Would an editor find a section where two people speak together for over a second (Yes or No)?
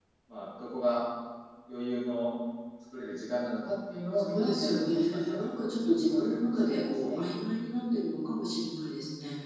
Yes